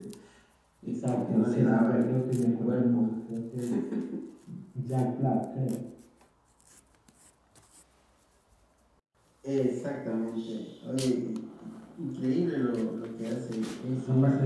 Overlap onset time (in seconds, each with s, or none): 0.8 s